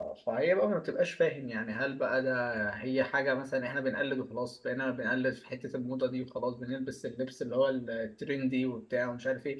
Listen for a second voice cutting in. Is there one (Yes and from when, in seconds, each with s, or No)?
No